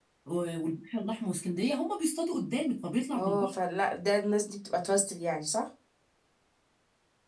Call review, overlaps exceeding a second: none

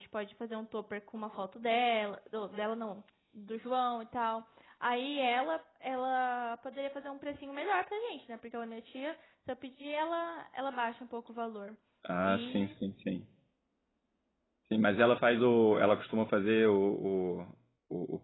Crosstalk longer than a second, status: none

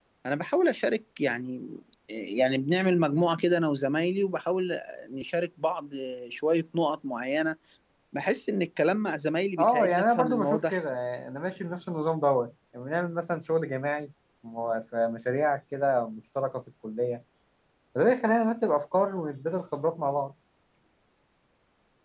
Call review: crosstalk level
present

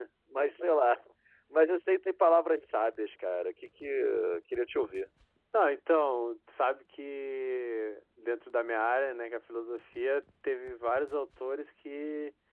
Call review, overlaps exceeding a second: none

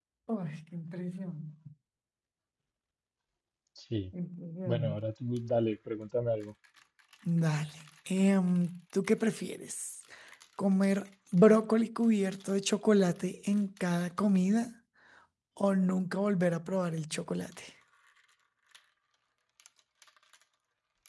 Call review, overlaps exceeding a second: none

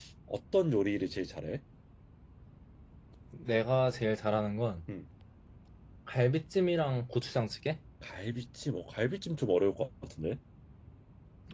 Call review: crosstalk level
none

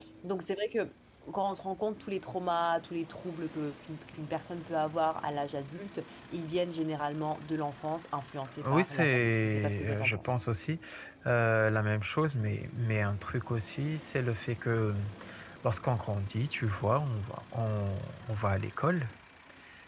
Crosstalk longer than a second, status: present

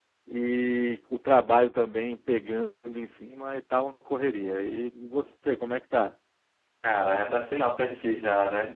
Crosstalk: none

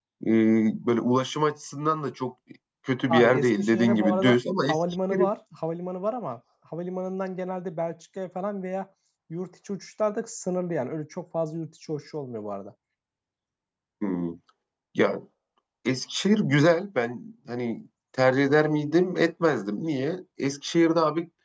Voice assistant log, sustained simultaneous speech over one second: present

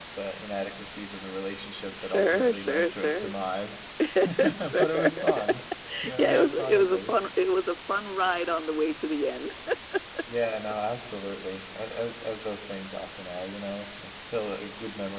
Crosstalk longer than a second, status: present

